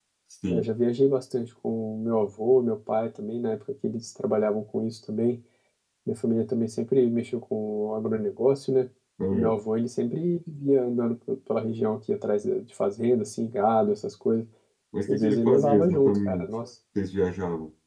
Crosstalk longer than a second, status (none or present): present